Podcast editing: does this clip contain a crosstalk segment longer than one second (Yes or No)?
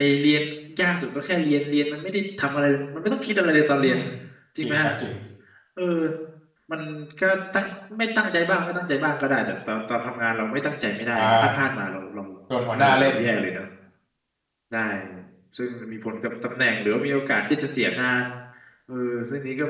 No